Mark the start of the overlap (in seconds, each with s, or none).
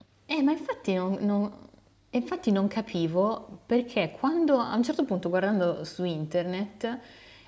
none